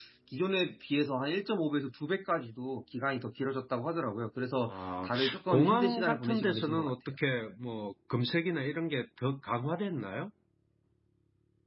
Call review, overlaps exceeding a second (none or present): present